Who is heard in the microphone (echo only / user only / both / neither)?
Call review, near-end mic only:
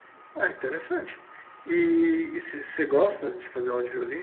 echo only